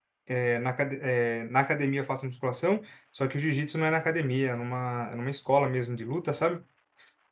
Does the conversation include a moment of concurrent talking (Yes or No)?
No